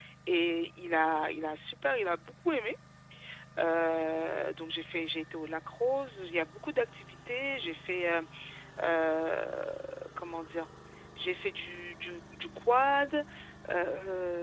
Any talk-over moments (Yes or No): No